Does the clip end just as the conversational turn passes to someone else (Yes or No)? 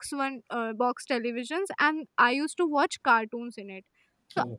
No